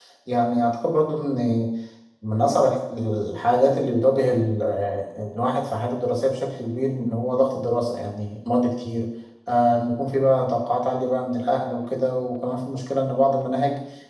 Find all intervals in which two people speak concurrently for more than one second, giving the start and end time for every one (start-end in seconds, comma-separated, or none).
none